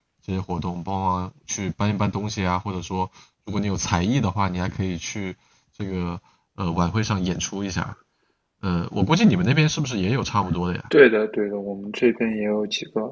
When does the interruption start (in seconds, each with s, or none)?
none